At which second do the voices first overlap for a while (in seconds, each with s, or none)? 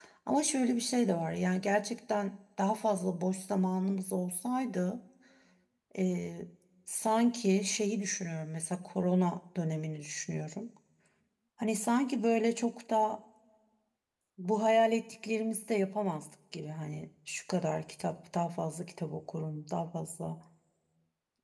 none